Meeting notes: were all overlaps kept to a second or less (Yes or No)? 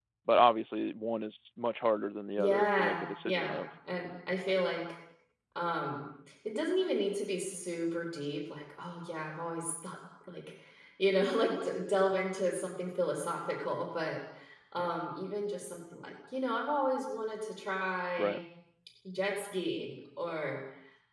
No